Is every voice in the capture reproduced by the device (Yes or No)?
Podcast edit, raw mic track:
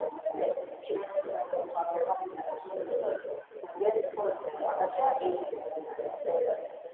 Yes